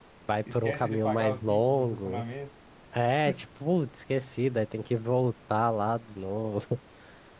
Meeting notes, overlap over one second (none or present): present